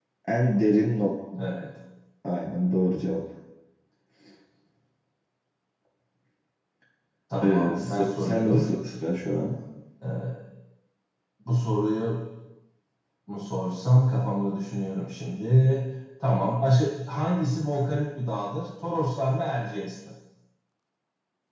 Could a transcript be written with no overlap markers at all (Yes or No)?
No